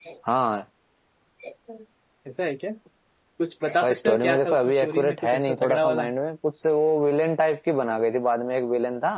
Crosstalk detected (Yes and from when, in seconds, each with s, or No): Yes, from 3.8 s